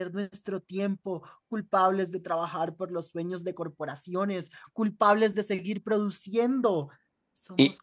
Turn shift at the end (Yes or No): No